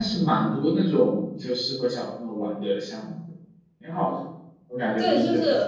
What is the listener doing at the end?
taking over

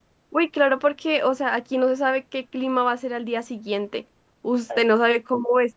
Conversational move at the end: listening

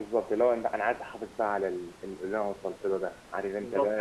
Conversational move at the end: taking over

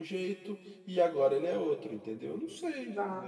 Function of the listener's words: taking over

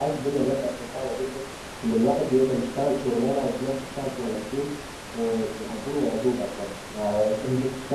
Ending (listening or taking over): listening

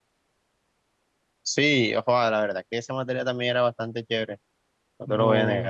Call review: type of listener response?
taking over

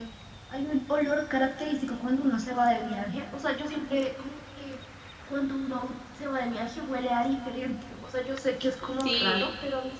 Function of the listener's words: listening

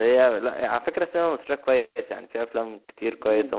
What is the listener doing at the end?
listening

